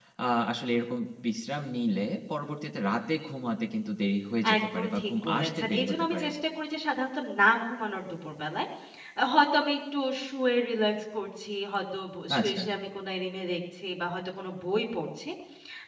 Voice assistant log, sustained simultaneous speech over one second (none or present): present